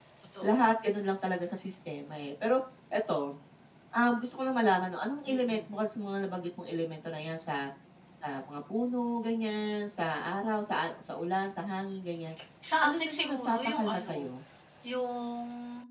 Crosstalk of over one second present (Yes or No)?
Yes